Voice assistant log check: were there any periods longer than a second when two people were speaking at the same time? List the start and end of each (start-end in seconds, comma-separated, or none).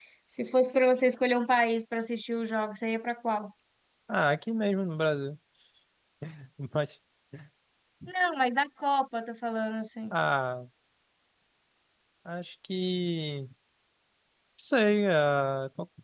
none